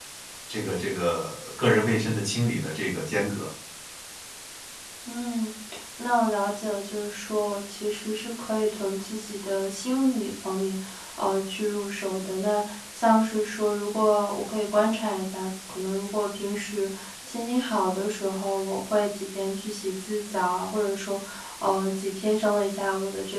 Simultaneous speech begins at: none

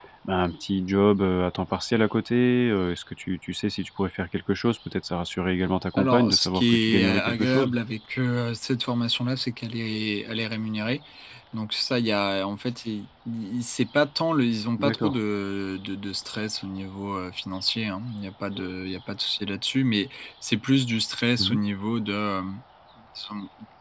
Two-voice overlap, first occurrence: 6.0 s

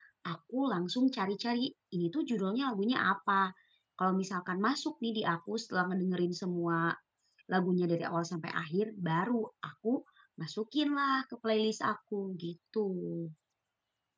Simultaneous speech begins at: none

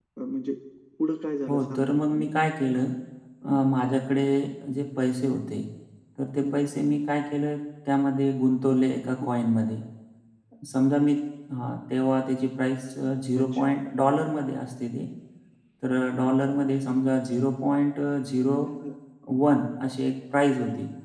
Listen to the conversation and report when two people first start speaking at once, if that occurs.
1.5 s

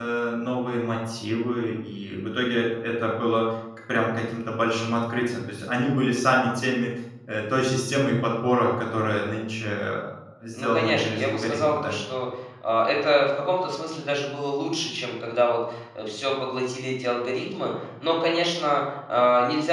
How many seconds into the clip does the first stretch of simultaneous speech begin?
10.5 s

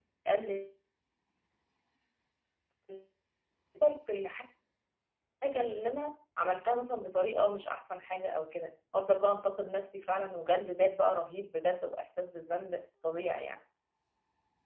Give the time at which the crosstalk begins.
none

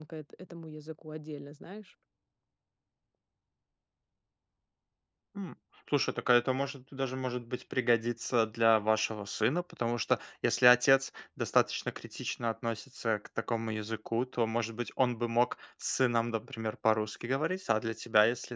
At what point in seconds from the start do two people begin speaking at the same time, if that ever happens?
none

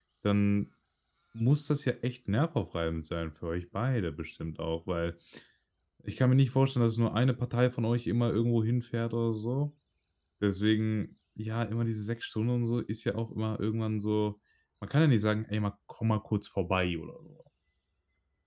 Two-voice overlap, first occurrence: none

